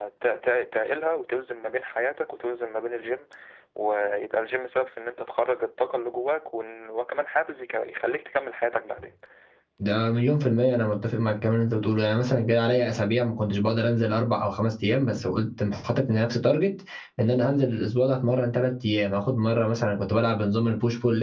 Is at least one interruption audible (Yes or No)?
No